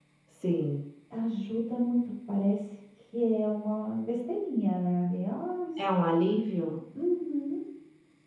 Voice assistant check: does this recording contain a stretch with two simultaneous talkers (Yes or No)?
No